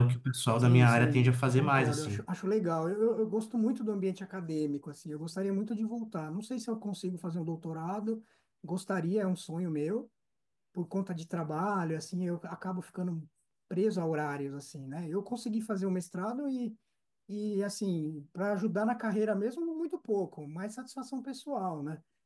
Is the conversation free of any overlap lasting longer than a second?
No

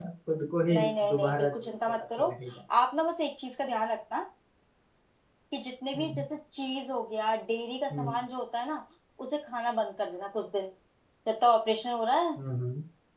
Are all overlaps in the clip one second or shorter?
No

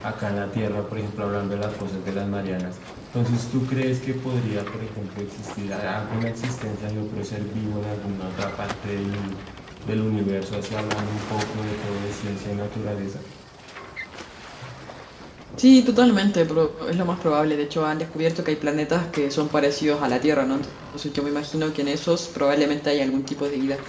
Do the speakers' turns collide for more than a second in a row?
No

